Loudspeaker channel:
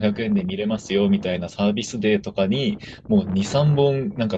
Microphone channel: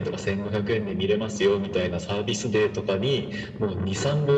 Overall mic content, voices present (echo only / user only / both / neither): echo only